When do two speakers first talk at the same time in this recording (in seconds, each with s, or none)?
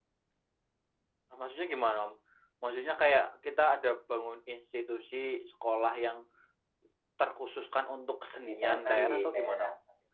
8.4 s